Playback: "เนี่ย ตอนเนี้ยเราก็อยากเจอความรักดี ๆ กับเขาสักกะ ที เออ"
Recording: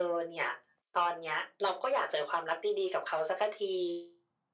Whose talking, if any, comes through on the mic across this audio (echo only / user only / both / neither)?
echo only